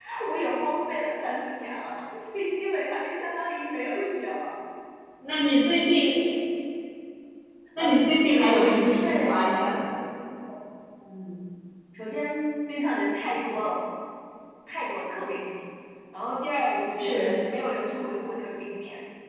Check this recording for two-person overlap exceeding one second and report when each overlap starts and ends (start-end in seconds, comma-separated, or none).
7.8-9.8